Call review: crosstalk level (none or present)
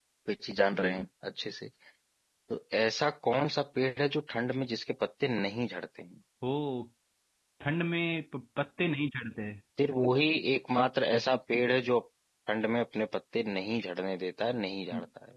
none